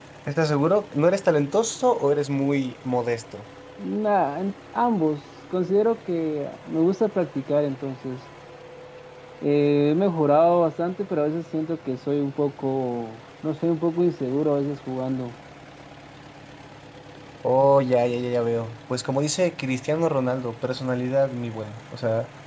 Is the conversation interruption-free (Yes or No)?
Yes